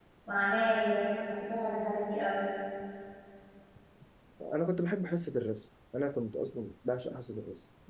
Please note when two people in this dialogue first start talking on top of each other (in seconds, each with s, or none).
none